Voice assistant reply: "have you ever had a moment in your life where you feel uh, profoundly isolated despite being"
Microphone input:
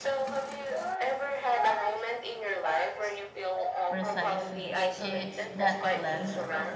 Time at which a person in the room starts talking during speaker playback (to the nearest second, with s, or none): 4 s